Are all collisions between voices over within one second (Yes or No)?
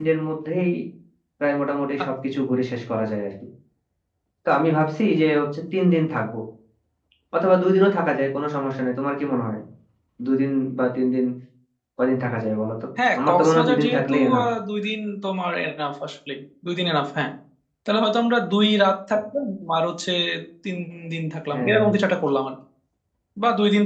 No